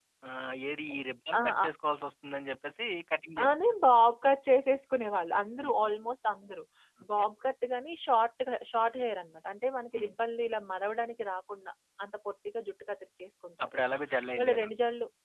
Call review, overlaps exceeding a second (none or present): none